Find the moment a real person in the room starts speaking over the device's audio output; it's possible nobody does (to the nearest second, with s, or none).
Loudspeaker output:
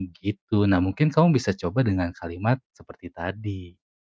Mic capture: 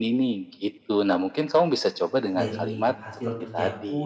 2 s